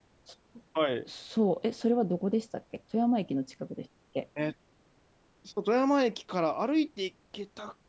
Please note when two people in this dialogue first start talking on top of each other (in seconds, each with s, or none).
none